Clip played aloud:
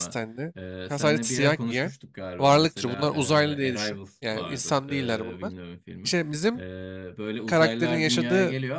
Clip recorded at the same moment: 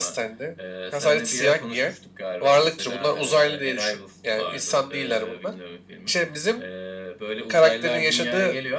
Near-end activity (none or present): none